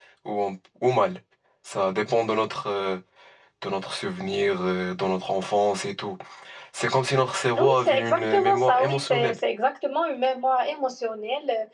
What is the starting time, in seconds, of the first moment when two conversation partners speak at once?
7.6 s

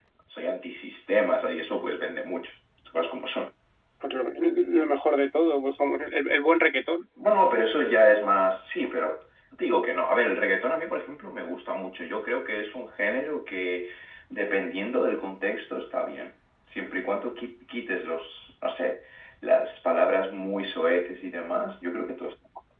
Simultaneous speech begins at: none

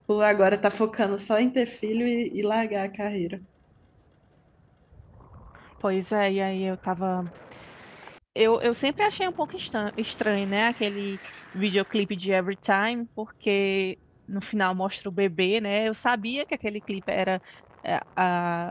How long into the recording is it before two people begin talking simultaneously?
none

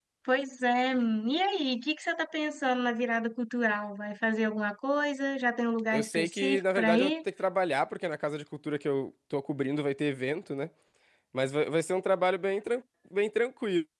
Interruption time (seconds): 5.9 s

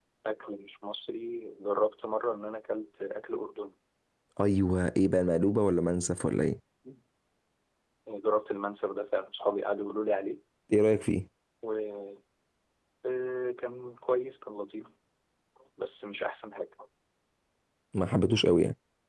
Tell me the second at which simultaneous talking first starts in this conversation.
none

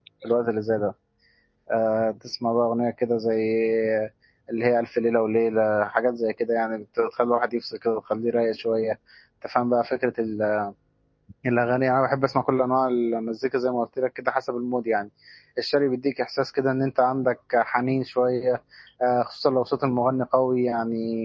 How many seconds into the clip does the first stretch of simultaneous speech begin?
none

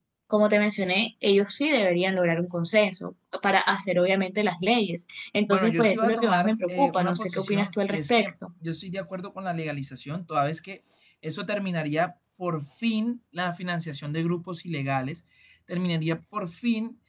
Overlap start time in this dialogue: 5.5 s

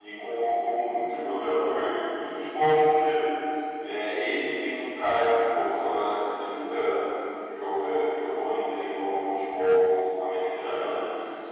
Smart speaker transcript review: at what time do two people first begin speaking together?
none

